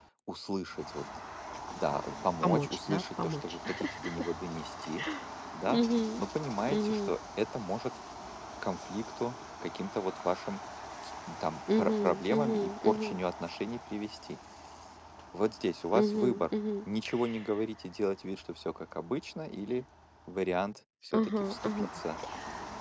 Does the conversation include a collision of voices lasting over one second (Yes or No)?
Yes